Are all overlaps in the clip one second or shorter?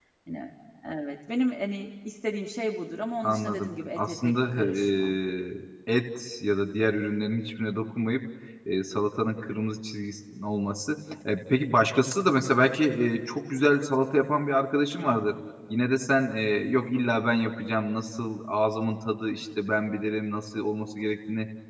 No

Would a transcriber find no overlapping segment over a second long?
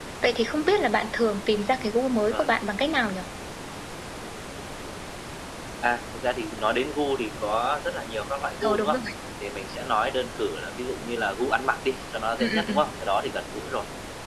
Yes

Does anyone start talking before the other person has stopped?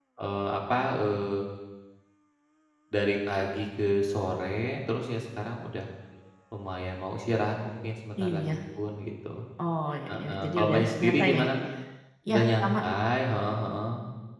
Yes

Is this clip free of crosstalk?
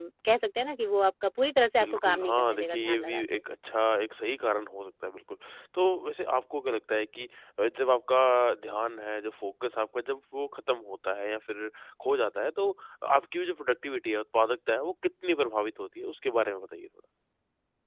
No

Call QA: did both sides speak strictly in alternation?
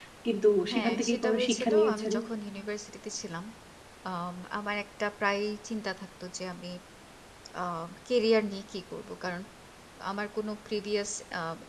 No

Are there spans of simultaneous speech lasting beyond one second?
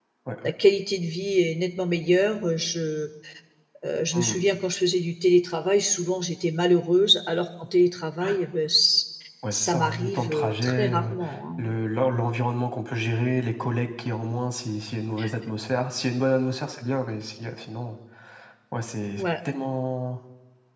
Yes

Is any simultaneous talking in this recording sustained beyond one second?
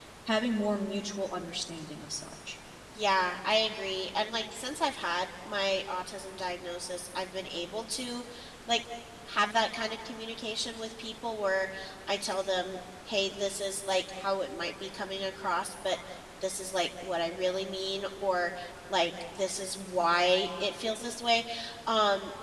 No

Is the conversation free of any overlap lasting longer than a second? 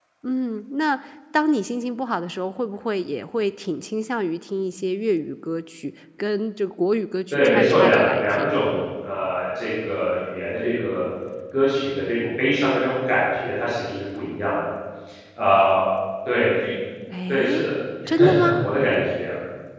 No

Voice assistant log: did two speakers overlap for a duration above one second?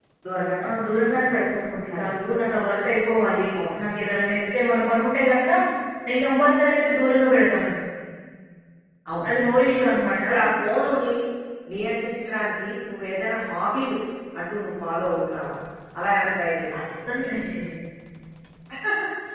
No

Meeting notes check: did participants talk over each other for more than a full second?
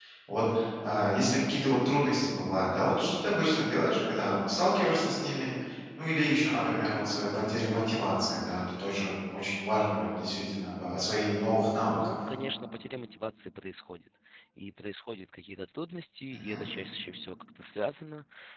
No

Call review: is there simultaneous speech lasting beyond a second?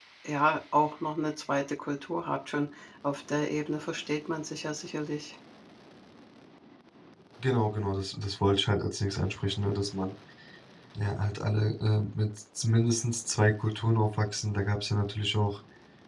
No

